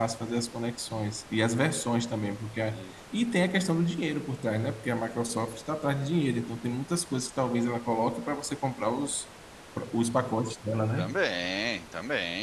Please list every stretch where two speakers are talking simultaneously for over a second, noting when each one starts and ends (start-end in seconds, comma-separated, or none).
none